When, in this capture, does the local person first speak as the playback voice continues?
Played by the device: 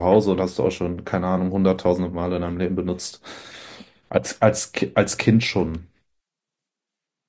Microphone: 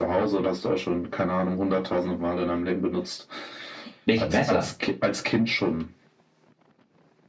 4.0 s

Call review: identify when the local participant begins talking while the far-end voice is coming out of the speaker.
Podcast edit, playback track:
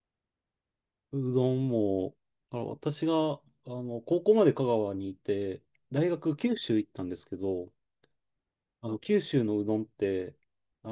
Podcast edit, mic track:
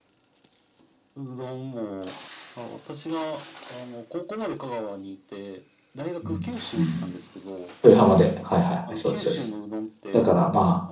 6.2 s

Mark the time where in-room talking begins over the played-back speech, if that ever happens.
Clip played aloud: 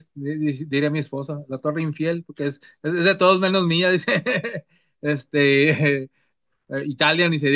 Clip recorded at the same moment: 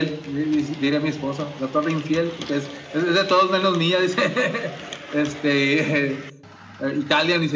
none

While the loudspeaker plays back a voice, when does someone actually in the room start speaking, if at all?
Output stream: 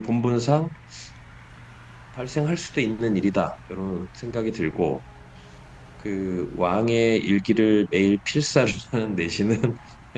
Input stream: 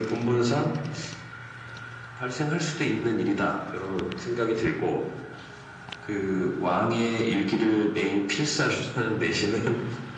none

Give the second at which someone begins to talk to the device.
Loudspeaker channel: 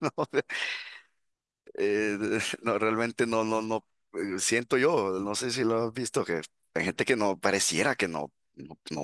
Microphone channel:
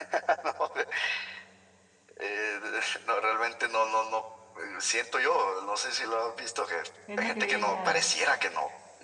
7.1 s

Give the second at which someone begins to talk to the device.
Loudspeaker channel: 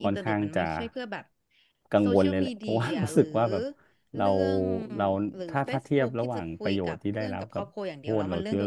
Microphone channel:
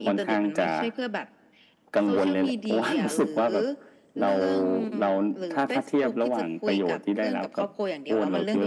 none

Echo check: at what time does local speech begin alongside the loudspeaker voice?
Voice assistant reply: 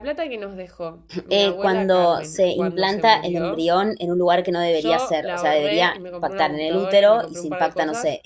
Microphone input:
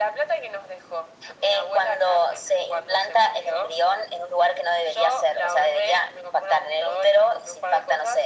none

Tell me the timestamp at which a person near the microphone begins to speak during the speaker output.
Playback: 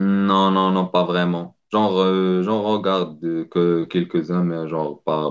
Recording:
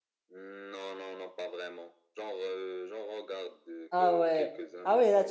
3.9 s

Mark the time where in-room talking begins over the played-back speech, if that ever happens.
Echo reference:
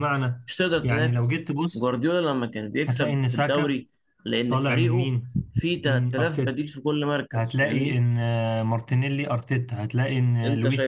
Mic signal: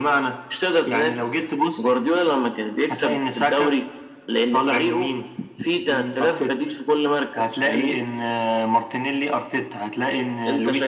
none

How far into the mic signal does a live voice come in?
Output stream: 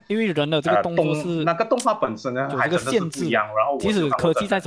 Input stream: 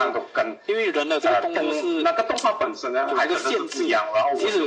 none

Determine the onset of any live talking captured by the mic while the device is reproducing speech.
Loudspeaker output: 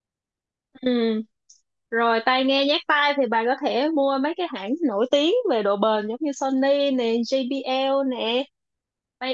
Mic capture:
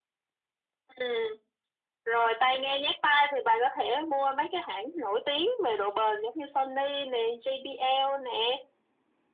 none

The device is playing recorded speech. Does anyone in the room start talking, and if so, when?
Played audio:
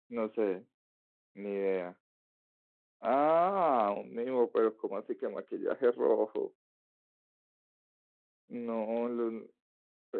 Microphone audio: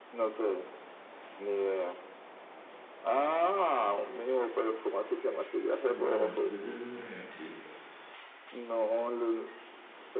5.9 s

